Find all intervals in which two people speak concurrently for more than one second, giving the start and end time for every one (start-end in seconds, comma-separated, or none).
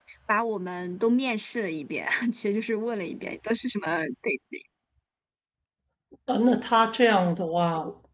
none